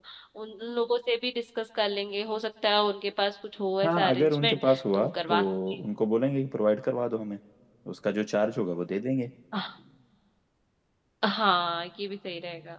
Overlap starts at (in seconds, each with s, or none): 3.8 s